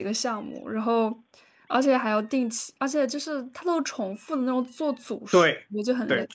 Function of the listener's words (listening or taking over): taking over